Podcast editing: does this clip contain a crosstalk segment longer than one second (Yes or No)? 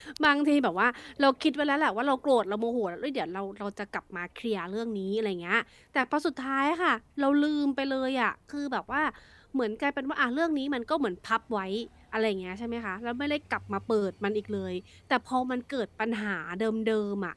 No